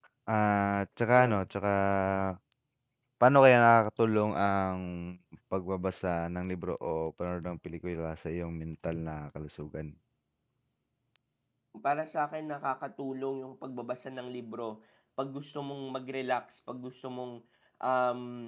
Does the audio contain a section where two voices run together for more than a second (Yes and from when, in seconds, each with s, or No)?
No